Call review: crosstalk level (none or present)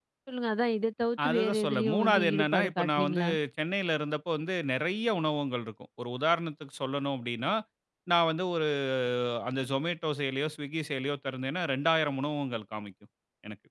present